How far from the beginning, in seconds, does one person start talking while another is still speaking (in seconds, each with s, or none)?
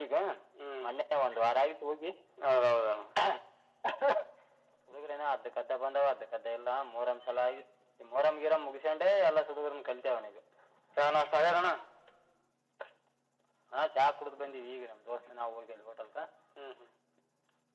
none